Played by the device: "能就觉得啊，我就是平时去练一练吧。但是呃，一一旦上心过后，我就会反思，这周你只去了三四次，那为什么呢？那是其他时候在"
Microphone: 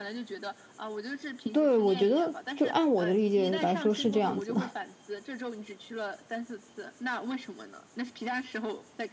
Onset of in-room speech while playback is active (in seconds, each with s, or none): 1.5 s